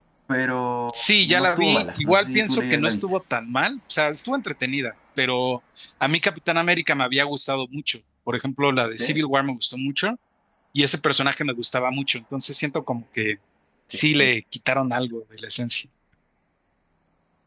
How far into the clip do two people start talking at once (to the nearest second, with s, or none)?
1 s